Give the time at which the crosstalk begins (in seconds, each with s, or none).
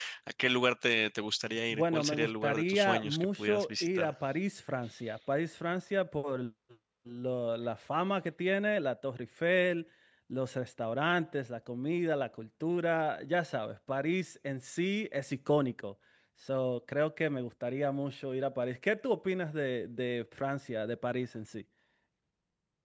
1.7 s